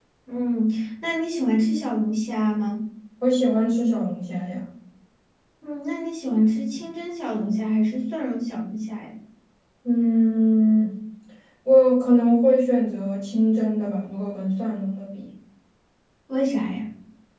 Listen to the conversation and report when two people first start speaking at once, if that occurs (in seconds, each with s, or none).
none